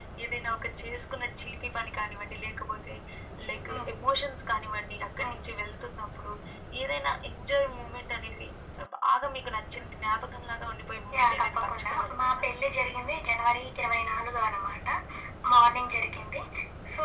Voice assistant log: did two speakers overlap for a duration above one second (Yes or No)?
Yes